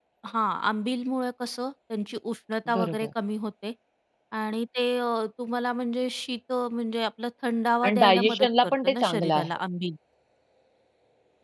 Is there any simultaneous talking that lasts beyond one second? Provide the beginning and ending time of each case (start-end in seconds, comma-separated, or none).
7.8-9.5